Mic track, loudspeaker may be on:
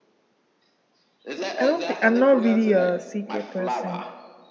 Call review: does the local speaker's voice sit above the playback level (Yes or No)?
Yes